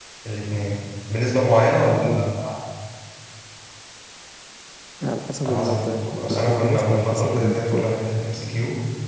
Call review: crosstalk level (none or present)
present